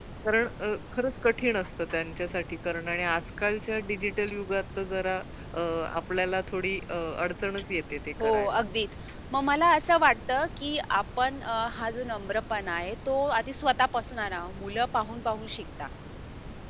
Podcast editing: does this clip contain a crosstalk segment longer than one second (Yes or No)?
No